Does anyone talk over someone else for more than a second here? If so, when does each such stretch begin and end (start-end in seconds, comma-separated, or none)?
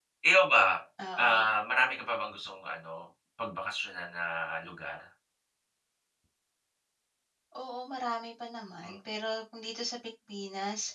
none